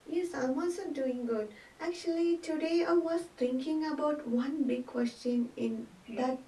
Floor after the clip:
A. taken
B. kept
B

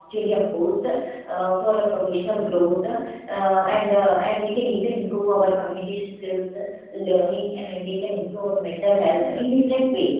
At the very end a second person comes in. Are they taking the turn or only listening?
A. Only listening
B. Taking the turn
A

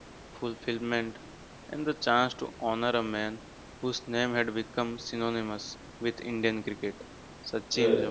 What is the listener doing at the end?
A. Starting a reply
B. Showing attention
B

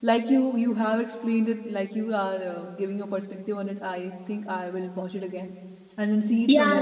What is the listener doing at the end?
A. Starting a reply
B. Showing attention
A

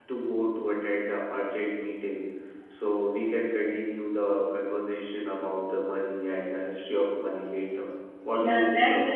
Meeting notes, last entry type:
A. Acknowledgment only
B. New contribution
B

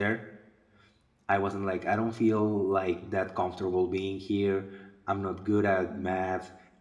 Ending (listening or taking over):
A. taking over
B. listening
B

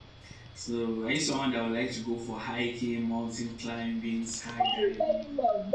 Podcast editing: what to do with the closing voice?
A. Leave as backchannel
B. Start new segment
B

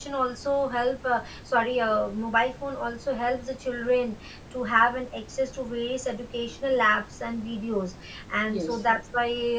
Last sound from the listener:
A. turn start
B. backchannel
B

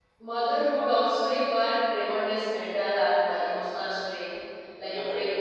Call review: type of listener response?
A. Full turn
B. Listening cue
B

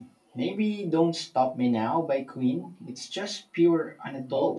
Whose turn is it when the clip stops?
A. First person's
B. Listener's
B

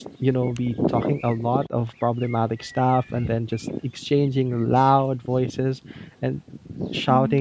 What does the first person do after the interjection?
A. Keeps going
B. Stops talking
A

